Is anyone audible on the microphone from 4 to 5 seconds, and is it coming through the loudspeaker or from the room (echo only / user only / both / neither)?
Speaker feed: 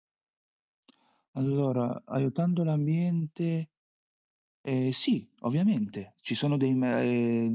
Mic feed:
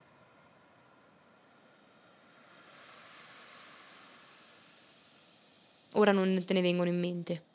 neither